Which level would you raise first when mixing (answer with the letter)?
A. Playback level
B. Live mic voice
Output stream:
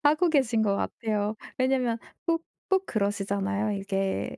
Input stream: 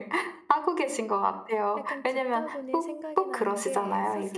B